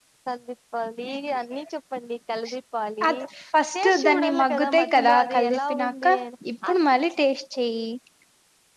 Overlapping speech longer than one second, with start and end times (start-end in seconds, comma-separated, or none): 3.8-6.1